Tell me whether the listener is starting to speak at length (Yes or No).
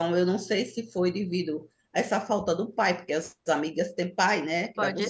Yes